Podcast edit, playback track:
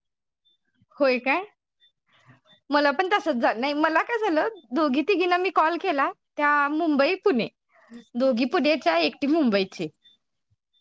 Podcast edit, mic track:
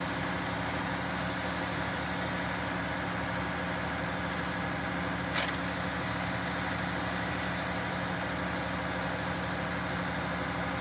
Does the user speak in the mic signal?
No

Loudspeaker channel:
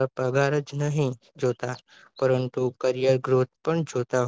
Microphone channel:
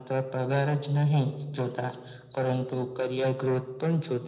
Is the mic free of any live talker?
Yes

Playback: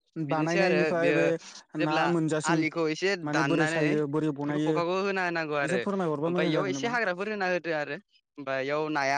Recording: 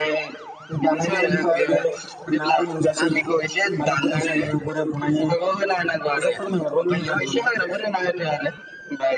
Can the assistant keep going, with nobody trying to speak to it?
Yes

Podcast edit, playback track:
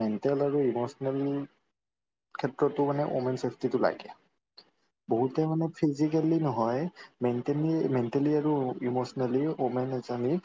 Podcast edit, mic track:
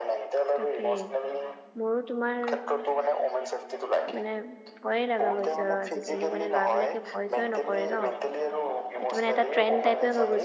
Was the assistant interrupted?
Yes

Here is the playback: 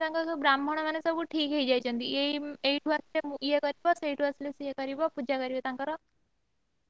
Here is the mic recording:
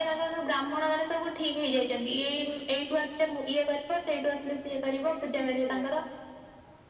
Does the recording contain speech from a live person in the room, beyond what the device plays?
Yes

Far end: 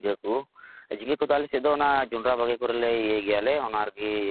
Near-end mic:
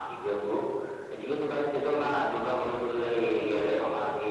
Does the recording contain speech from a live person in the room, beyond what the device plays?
No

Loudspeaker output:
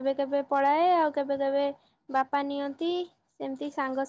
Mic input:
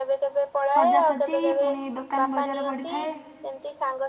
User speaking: Yes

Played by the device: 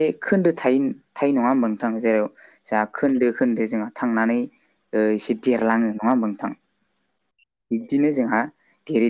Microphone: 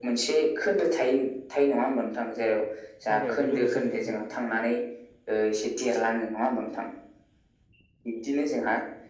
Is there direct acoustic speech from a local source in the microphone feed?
Yes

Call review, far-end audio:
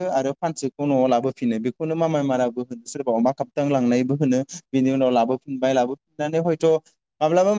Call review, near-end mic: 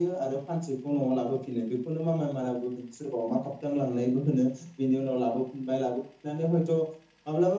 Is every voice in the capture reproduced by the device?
Yes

